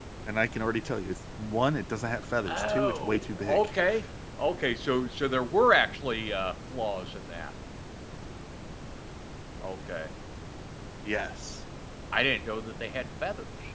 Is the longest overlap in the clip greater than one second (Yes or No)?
Yes